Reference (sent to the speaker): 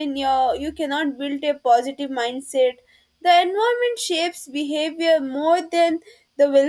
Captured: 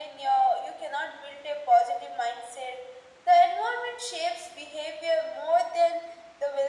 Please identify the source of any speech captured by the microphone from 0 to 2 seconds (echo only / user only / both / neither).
echo only